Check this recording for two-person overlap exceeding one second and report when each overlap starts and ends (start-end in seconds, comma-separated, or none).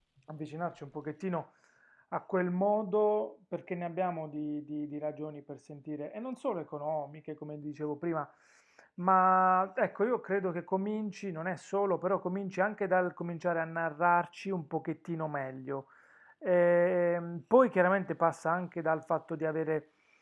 none